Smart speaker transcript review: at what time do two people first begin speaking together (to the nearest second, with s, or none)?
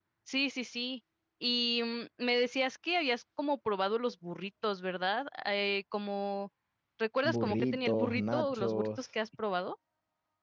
7 s